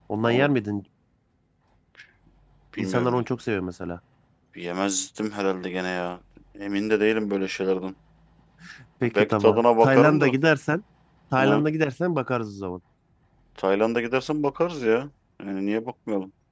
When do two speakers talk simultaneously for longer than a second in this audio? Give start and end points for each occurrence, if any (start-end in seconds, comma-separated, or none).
9.1-10.3